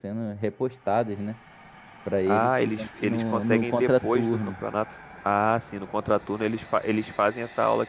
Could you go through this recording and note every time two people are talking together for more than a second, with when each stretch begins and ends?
2.3-4.5

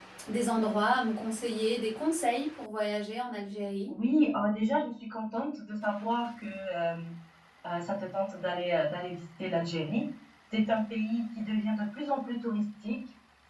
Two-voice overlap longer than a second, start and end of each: none

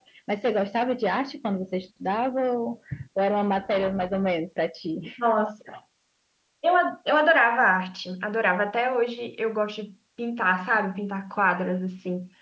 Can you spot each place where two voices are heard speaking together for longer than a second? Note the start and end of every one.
none

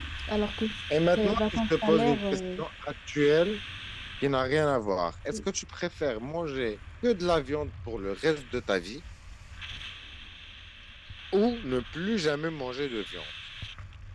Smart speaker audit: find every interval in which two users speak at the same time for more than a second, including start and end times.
1.2-2.4

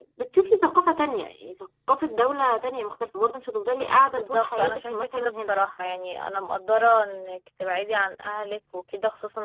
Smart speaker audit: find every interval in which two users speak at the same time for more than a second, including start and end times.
4.1-5.6

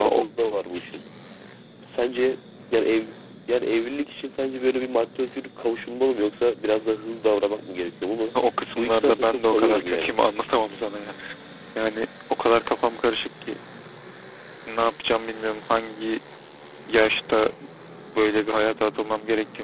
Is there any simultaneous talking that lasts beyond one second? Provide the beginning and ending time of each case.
8.8-10.2

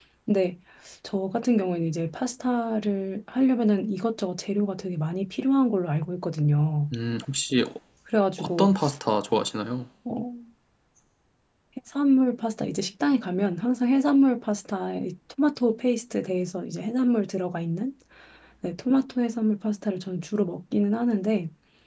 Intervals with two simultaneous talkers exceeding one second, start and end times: none

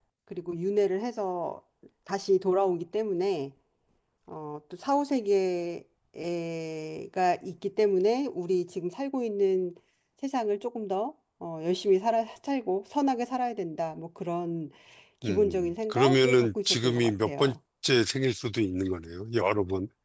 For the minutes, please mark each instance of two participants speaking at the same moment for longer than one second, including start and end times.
15.2-17.6

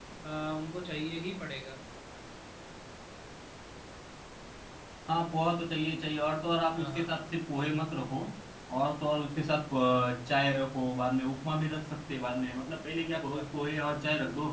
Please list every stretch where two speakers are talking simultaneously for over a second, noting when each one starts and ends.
none

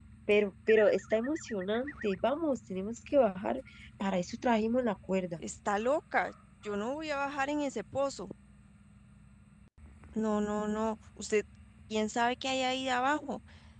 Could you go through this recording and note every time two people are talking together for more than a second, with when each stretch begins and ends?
none

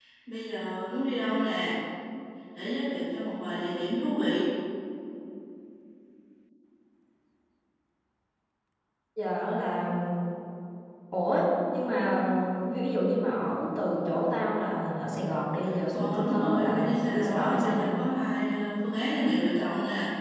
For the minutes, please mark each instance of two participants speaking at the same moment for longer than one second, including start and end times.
15.9-17.9

